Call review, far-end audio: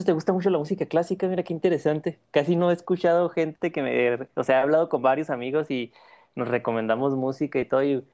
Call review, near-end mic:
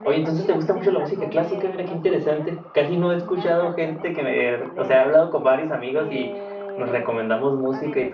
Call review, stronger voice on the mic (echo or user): echo